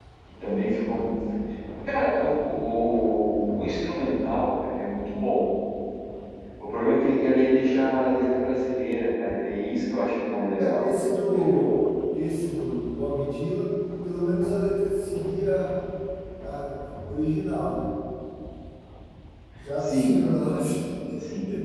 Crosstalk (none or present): present